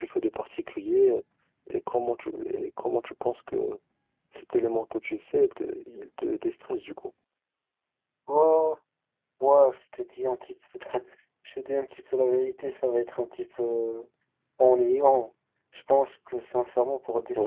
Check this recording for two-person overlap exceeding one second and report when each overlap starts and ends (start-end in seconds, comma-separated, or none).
none